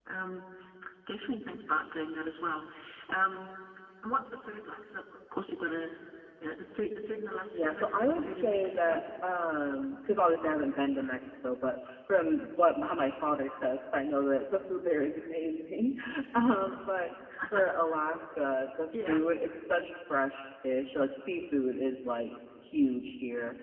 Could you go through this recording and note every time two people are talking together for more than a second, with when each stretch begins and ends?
7.5-9.0

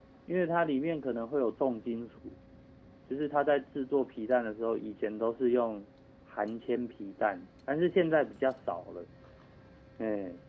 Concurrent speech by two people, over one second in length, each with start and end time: none

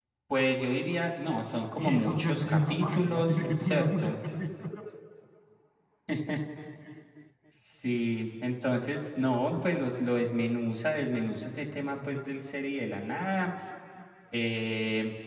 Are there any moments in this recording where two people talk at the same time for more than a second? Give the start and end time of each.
1.8-4.2

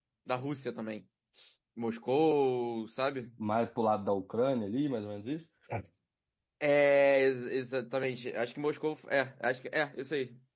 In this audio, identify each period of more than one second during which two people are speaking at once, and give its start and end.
none

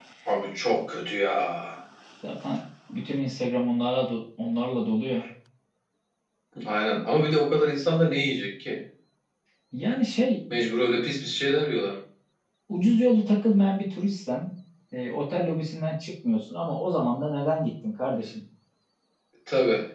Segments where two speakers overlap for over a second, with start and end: none

